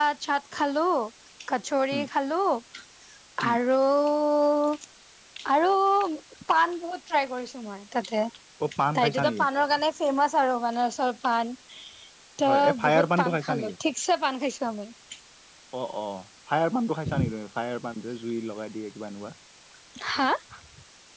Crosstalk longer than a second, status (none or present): present